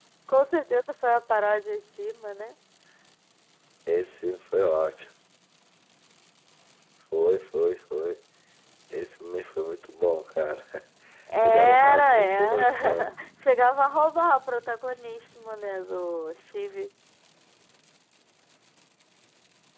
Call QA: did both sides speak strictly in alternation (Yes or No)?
No